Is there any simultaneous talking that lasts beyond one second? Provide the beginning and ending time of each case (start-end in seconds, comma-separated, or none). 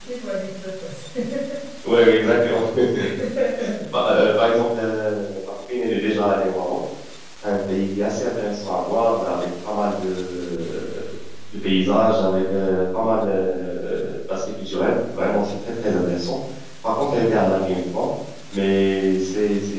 none